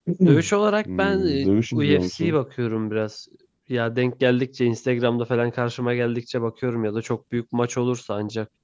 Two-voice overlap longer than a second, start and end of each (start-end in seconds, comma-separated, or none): 1.0-2.4